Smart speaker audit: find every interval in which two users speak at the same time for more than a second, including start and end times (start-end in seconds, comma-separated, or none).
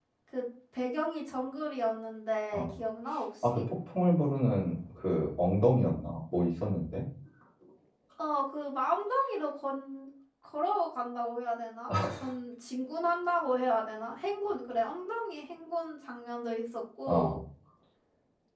none